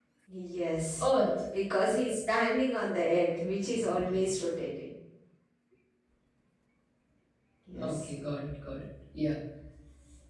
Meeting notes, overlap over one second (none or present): none